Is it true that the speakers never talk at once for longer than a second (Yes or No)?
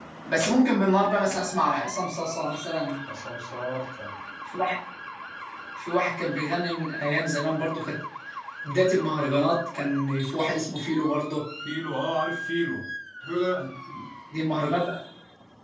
Yes